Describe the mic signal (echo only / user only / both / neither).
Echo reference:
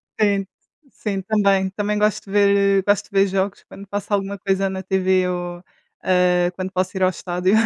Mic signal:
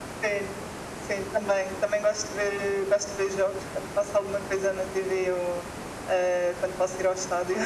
echo only